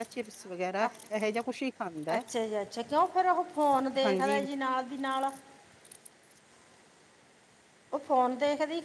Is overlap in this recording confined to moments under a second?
Yes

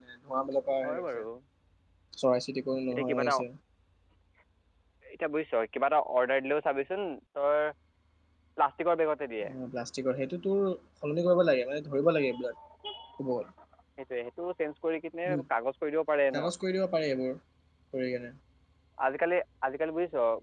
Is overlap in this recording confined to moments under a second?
Yes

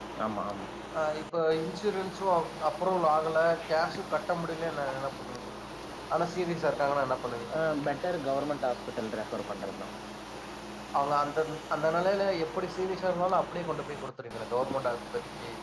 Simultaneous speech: No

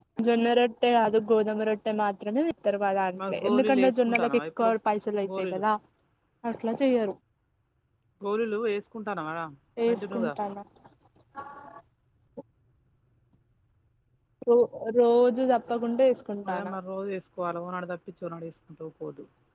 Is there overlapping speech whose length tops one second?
Yes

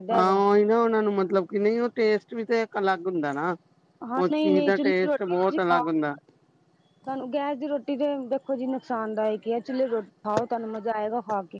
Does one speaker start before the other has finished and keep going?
Yes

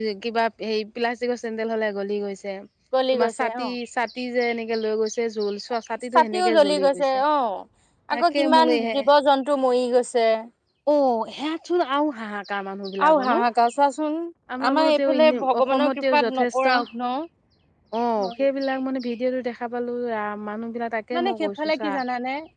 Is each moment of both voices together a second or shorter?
No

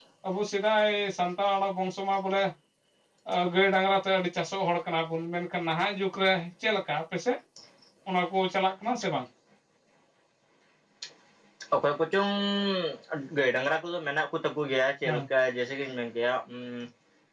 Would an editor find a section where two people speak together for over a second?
No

